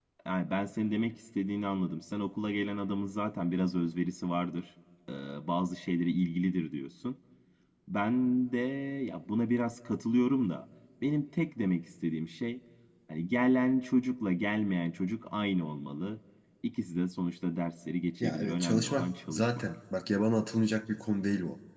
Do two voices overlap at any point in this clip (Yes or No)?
Yes